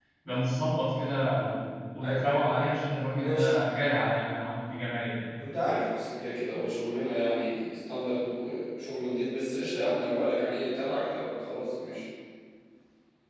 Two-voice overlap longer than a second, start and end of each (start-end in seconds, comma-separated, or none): none